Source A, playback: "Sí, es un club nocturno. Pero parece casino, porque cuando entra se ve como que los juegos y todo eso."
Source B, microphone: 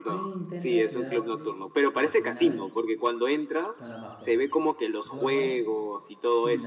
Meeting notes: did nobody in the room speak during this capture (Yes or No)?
No